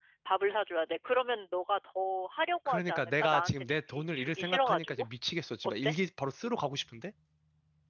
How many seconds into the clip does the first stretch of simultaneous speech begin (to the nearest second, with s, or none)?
3 s